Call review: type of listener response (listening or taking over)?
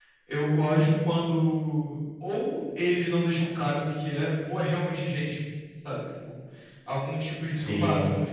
listening